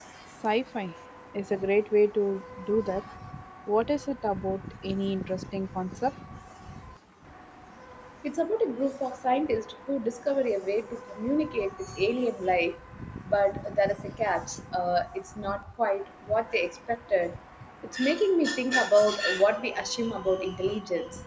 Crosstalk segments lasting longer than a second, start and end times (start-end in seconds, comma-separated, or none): none